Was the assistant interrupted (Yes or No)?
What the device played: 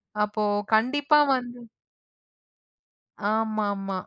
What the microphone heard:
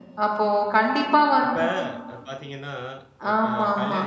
Yes